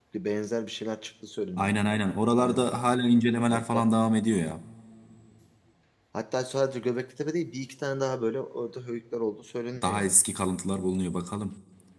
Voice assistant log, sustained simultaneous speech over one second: none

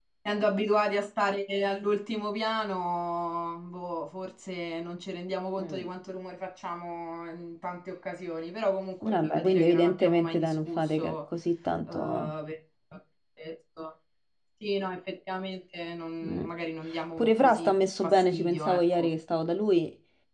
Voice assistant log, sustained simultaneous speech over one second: present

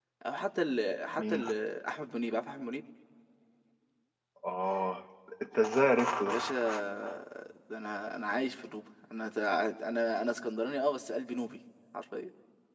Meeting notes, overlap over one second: none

